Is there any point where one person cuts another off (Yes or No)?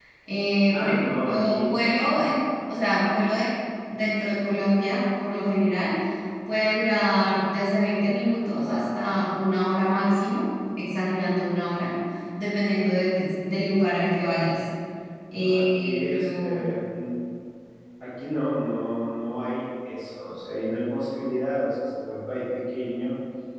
Yes